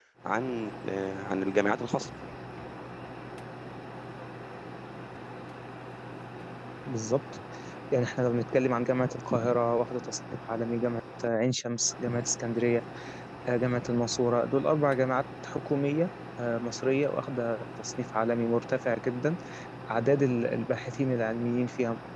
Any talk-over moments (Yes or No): No